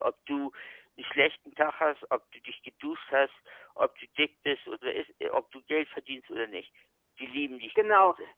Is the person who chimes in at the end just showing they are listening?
No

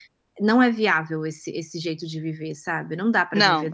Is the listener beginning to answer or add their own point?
No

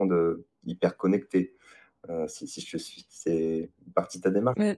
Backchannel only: No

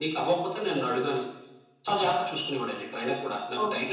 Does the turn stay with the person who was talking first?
No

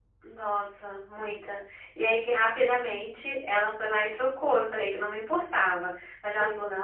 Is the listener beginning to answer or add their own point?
No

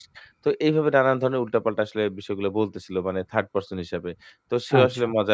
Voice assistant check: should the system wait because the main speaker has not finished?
Yes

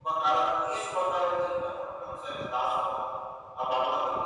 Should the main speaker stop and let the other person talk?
Yes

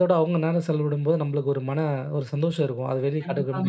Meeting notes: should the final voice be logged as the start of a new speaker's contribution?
Yes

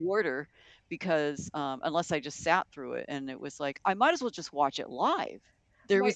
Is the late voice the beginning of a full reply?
No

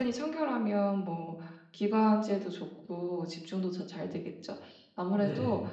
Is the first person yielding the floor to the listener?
No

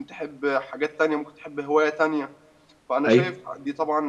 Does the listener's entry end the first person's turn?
No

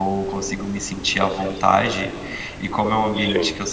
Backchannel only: Yes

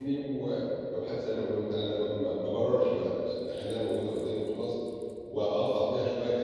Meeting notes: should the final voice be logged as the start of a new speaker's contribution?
No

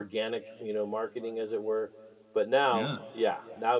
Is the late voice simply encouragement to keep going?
Yes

